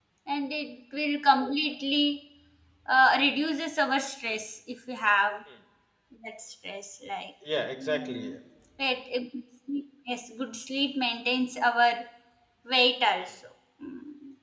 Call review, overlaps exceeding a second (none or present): none